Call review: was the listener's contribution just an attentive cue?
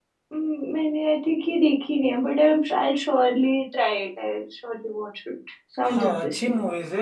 No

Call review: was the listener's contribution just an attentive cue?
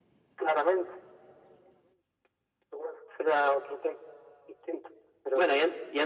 No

